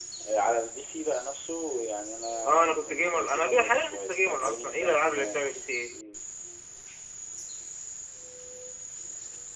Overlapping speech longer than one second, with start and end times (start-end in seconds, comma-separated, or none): 2.4-5.4